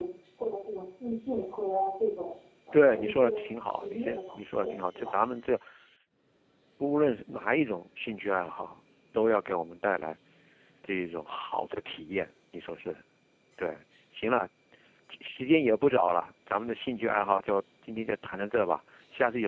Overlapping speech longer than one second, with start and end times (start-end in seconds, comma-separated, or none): 2.7-5.1